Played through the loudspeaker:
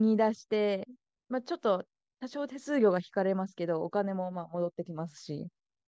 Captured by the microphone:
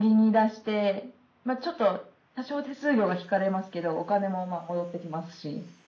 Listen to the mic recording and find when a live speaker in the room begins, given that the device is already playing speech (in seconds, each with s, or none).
none